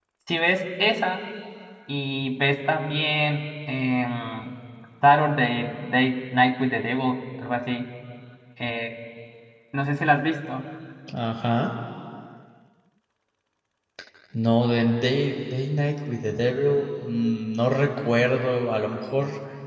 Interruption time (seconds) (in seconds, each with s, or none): none